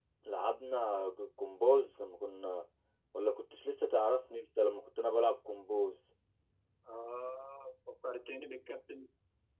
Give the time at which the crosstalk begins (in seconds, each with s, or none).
none